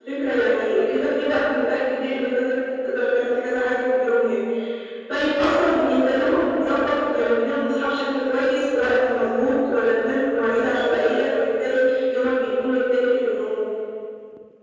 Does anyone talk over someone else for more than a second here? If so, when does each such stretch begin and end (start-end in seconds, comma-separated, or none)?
none